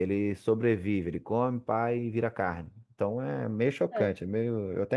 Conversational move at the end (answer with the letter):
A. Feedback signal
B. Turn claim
A